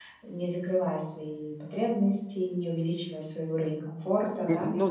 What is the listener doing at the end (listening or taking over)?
taking over